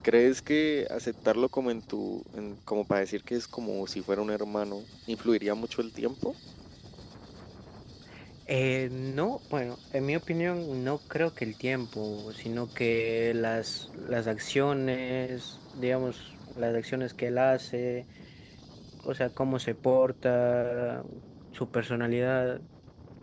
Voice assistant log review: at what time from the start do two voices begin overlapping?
none

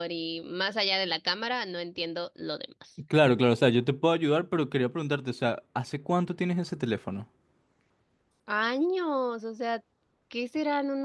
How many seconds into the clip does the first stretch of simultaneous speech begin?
none

